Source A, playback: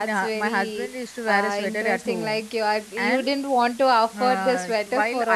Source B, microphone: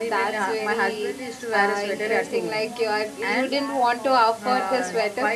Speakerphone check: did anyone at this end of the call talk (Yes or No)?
Yes